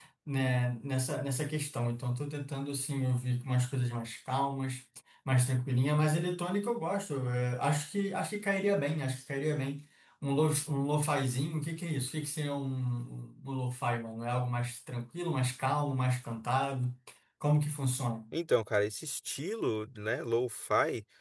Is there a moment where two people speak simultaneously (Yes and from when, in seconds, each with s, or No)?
No